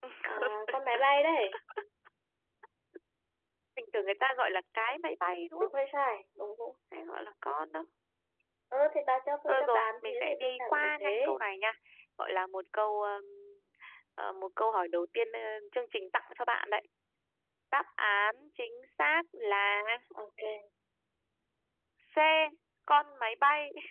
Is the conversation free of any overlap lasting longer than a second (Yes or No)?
No